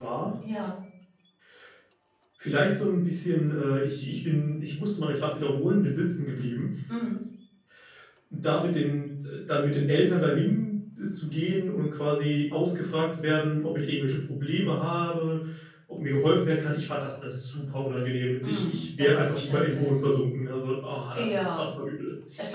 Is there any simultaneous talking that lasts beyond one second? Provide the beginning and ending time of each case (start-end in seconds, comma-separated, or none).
18.4-20.0